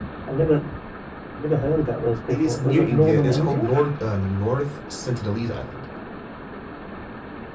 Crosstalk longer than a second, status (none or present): present